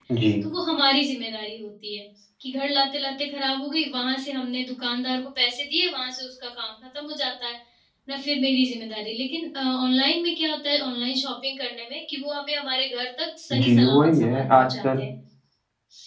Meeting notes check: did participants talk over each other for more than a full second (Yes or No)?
Yes